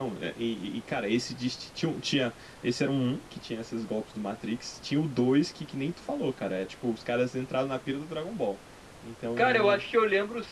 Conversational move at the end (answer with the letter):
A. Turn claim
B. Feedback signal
A